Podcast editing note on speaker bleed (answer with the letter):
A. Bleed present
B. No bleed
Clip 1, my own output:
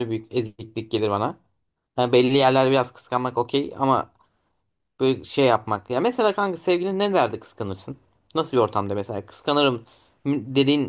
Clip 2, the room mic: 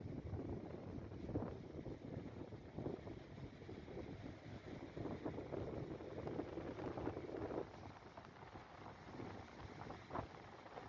B